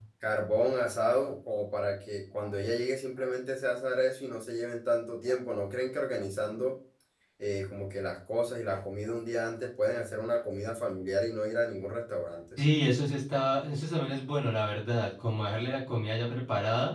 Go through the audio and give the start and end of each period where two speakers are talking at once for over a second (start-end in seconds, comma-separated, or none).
none